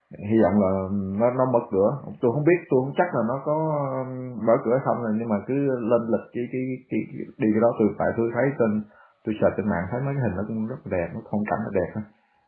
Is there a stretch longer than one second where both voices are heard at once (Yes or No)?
No